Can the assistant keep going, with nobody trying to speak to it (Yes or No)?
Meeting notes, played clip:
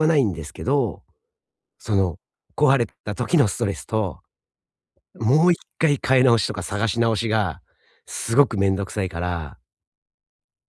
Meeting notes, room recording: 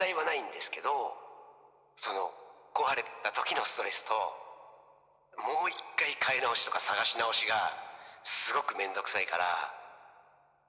Yes